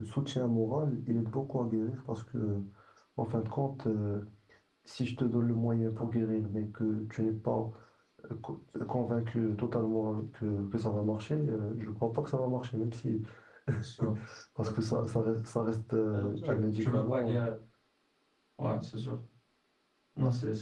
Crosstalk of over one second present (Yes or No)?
Yes